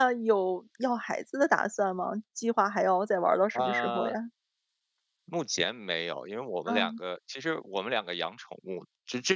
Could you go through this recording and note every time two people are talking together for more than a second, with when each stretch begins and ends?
none

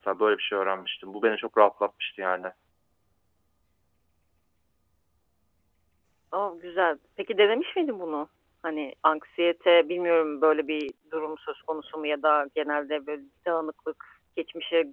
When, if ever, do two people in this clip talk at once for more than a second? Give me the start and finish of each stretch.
none

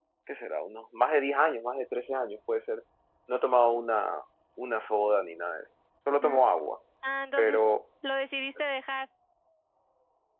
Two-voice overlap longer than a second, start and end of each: none

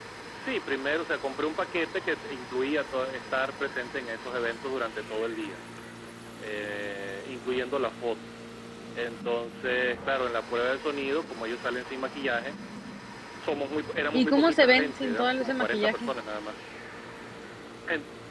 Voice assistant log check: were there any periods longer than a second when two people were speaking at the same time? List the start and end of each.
14.1-16.1

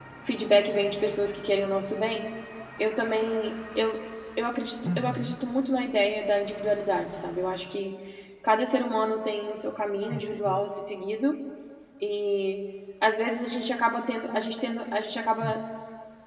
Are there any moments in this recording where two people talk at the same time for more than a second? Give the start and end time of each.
none

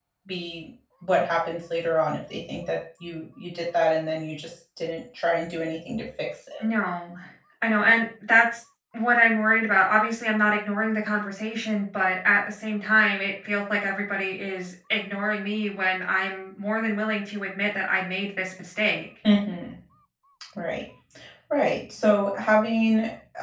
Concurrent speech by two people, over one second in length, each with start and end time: none

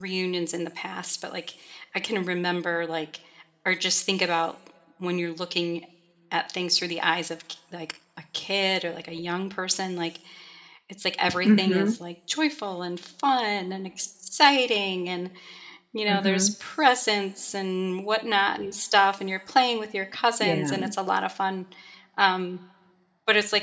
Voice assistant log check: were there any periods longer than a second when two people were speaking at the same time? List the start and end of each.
none

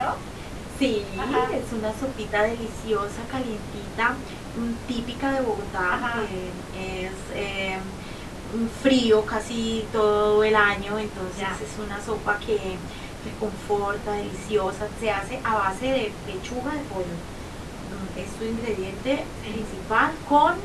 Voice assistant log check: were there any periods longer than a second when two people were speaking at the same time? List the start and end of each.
none

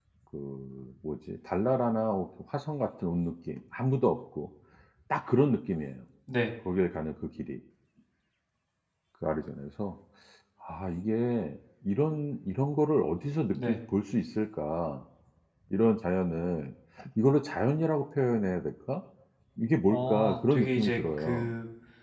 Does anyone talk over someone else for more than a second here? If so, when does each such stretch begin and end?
19.9-21.5

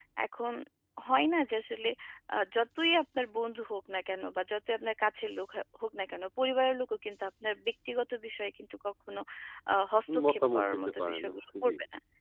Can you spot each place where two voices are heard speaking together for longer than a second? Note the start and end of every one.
10.3-11.7

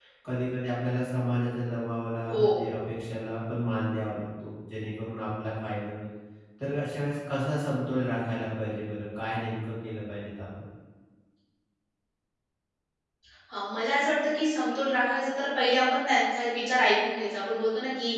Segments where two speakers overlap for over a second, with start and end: none

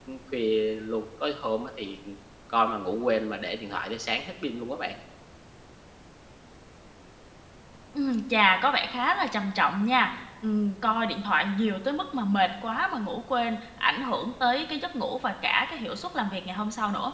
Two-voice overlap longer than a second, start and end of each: none

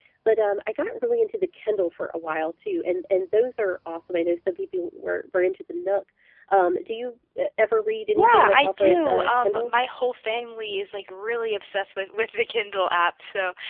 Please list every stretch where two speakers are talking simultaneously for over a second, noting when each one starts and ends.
8.2-9.7

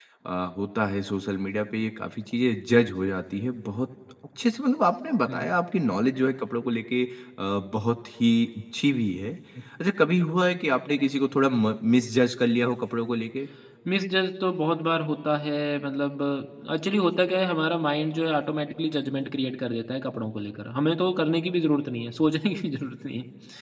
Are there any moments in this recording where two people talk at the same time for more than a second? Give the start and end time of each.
none

